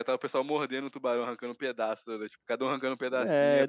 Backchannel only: No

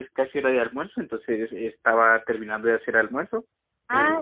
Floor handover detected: No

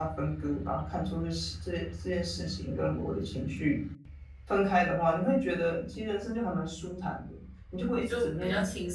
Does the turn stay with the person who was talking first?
No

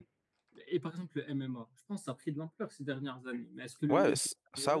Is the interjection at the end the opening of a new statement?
Yes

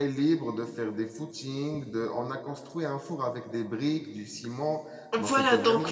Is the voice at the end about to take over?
Yes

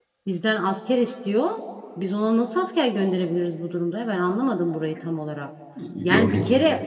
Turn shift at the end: No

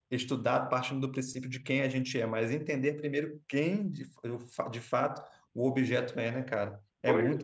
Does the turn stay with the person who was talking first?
No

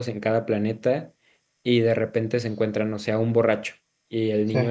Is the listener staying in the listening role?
Yes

